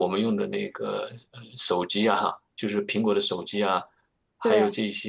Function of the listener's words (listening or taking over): listening